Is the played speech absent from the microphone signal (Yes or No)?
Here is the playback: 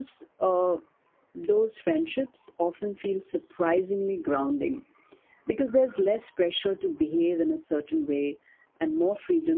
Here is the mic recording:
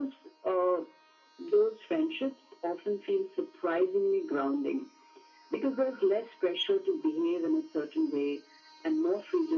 No